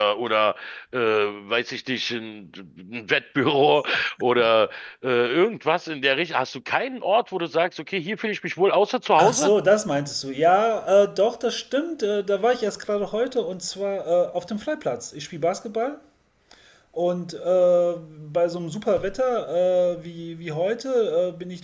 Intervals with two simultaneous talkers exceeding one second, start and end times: none

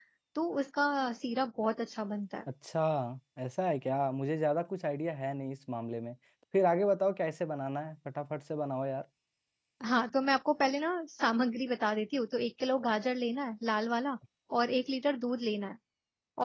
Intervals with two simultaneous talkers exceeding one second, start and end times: none

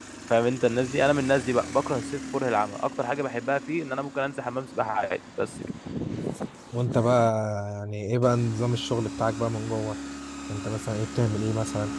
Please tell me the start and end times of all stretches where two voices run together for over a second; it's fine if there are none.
none

